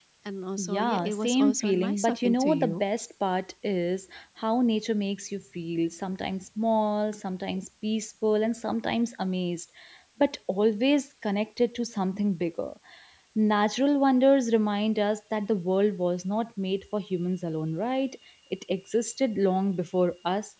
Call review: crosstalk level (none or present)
present